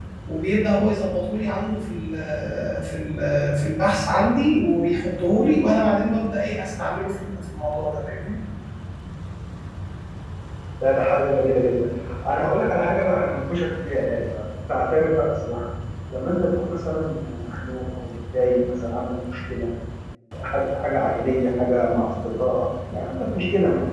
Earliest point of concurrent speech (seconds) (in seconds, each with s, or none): none